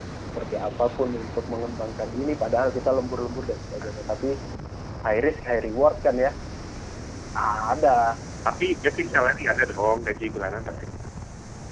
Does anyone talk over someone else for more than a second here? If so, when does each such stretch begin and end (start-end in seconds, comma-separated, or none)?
none